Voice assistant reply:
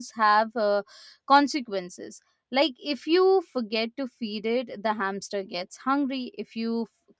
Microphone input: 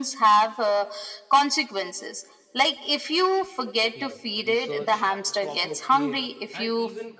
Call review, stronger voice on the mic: echo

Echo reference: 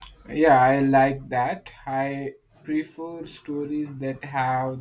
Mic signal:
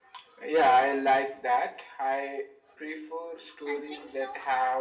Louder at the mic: echo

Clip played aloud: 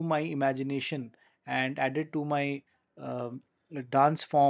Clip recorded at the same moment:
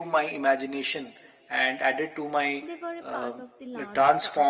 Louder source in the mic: echo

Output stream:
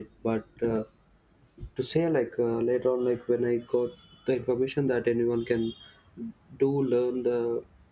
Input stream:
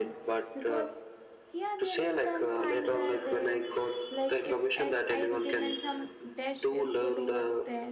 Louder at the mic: echo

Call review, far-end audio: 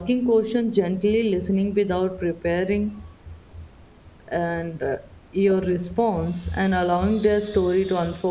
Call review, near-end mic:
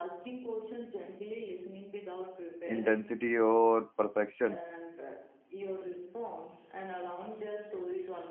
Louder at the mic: user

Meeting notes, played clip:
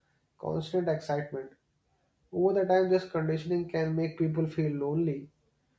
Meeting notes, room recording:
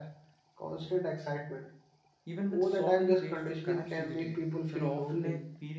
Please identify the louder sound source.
echo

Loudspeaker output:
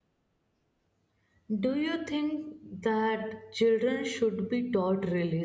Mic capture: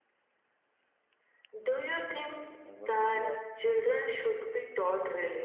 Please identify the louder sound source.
echo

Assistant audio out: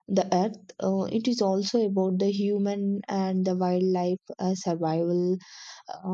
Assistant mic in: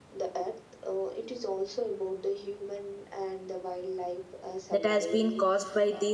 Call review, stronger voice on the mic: user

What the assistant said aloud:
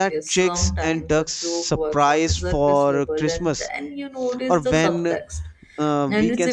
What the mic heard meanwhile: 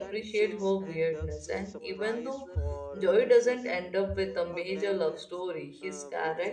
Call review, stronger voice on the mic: user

